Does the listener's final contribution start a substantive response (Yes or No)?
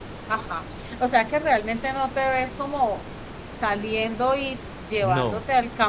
No